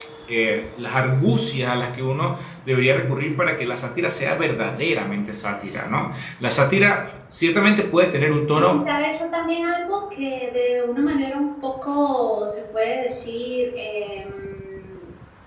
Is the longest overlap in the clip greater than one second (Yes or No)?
No